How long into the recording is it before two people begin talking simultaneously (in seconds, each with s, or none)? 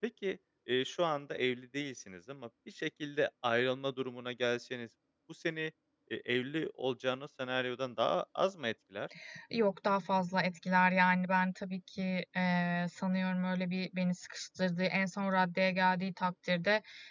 none